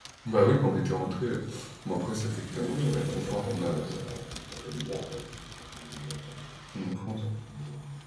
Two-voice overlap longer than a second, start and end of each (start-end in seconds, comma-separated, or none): 2.5-4.0